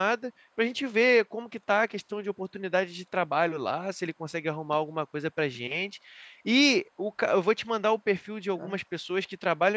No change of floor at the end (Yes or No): Yes